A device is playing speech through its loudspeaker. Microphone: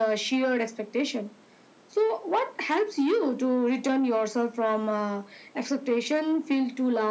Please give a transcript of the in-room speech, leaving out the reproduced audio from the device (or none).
none